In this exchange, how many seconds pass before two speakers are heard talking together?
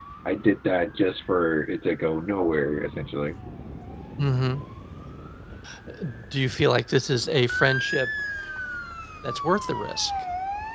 none

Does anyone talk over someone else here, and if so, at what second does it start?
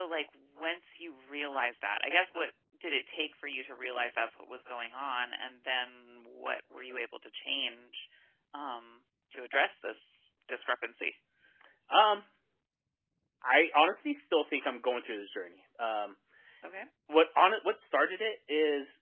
none

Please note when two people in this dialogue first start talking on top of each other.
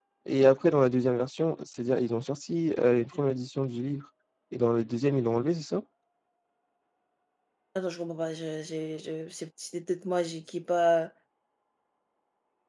none

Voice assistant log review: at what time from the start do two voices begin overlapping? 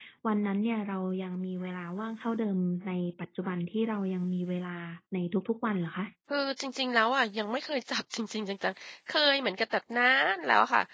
none

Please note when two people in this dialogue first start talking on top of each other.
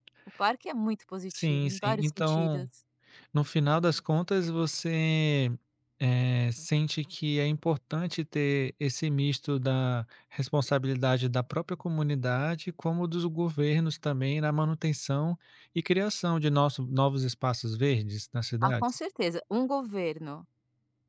1 s

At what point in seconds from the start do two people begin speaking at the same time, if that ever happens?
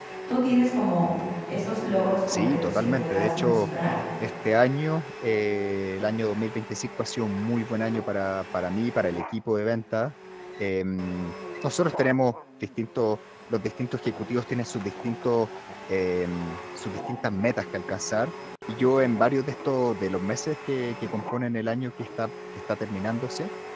2 s

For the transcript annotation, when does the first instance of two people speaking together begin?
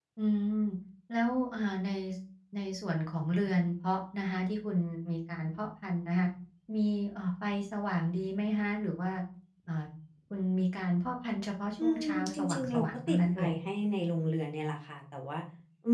12 s

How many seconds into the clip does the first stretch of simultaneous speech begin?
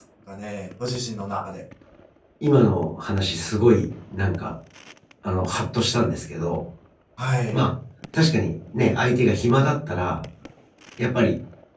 none

